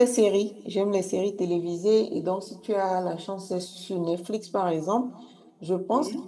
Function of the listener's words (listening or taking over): listening